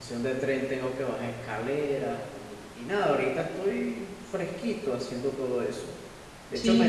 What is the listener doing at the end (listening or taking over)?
listening